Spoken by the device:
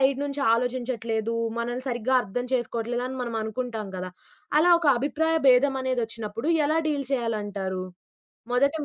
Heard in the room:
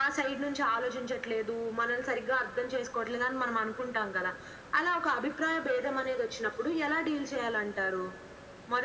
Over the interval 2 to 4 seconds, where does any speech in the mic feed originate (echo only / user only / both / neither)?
echo only